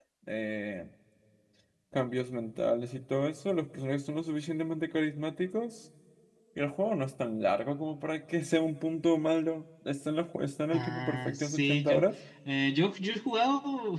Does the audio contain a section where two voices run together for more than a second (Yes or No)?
Yes